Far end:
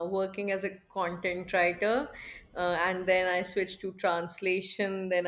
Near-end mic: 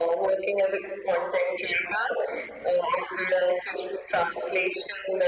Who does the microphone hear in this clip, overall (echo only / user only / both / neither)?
echo only